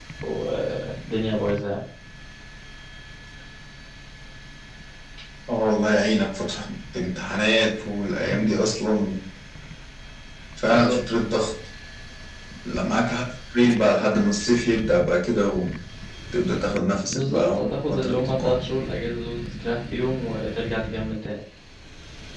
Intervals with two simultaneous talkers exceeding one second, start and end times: 17.1-18.6

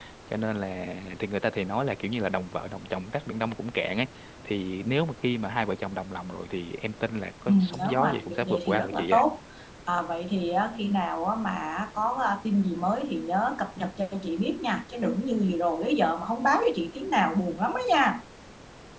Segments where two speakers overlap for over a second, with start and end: 7.5-9.2

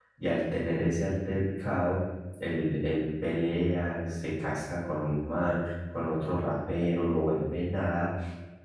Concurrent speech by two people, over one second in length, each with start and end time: none

